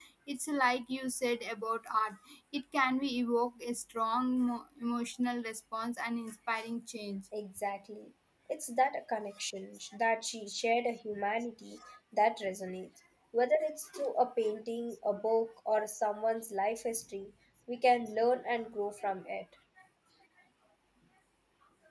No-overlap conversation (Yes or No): Yes